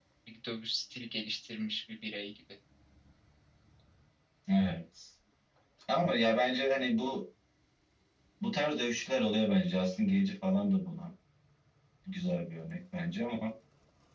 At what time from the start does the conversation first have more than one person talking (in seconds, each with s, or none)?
none